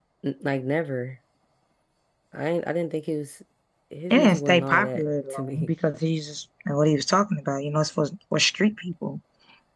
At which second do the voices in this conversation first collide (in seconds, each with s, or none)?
4.1 s